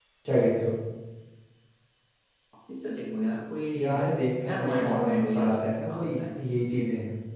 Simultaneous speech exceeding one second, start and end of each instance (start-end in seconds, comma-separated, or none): 4.5-6.2